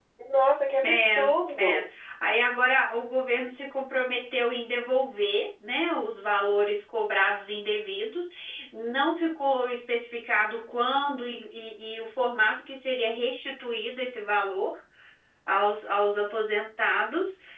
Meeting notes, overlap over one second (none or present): none